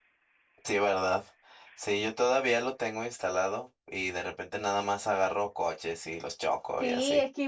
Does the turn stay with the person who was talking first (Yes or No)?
No